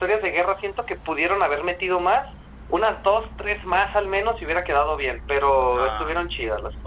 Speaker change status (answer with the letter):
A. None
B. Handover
B